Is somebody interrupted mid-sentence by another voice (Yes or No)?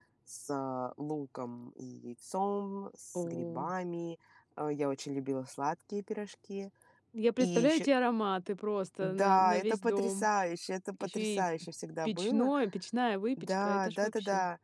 Yes